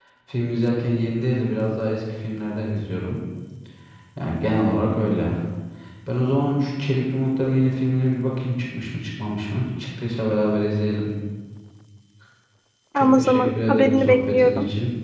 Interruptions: present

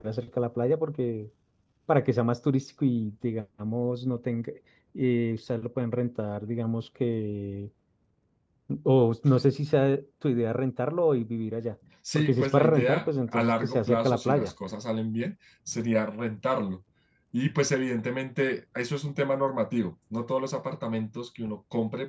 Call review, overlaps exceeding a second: present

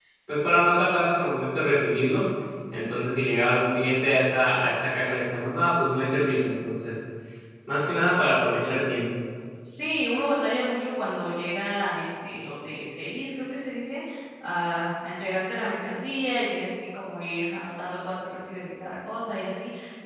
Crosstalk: none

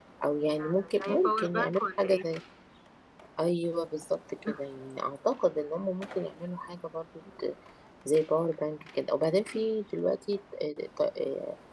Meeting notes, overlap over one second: present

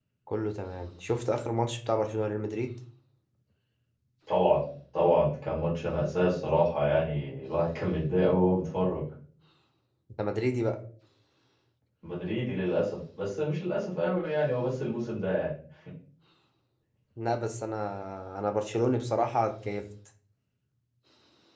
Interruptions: none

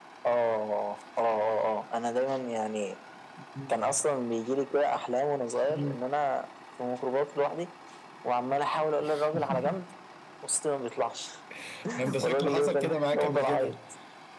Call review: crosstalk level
present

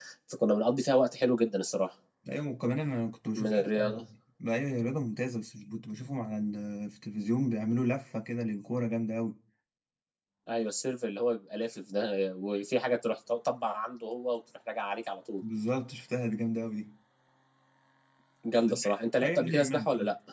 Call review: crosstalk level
present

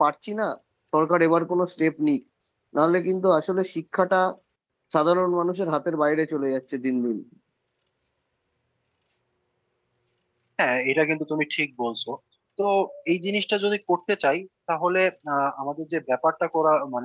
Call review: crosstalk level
none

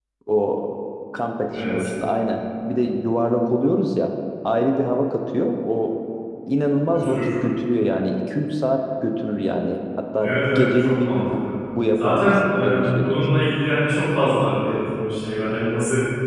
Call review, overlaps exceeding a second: present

